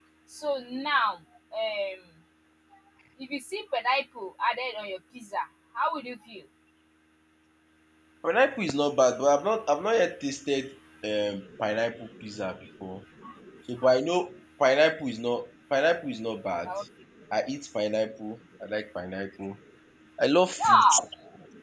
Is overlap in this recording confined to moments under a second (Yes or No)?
Yes